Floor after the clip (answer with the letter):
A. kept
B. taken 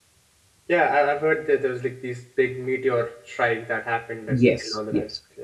B